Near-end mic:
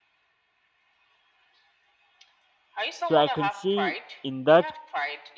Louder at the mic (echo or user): user